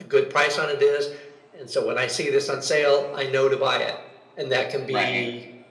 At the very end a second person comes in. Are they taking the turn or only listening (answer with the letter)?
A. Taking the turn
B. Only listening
B